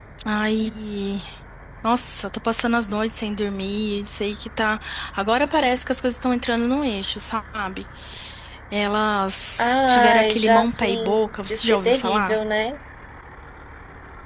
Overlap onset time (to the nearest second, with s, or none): 10 s